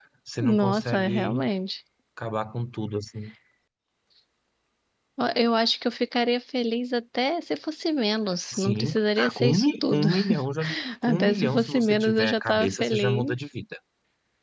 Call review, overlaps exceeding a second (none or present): present